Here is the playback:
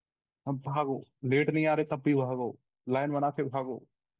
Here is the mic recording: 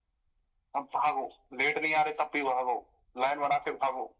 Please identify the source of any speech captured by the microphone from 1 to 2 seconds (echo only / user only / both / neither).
echo only